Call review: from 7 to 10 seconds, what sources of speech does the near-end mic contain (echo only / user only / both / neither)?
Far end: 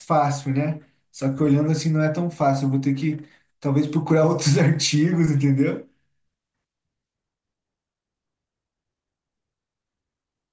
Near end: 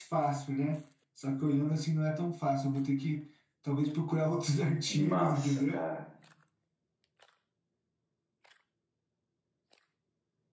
neither